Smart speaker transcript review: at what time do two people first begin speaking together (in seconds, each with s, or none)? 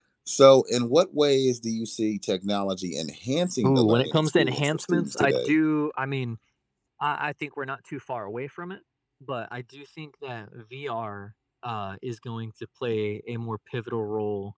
3.6 s